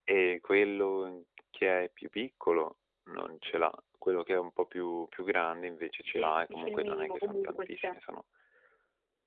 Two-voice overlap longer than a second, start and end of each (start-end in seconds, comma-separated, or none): 6.0-8.0